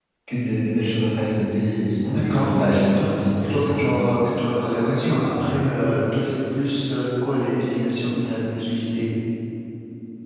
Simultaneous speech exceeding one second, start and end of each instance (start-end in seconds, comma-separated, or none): 2.1-3.9